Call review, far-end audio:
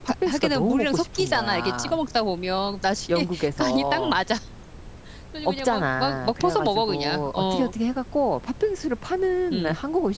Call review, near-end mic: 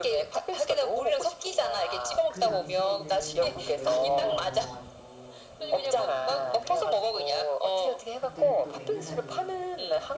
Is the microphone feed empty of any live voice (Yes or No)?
No